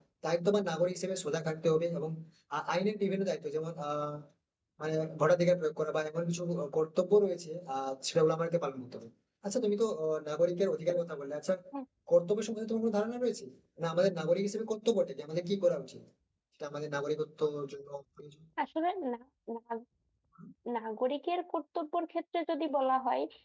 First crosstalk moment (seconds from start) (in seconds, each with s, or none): none